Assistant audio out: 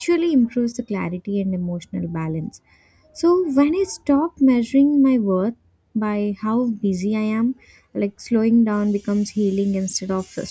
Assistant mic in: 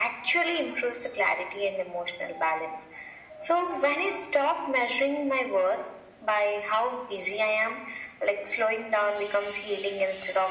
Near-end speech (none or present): none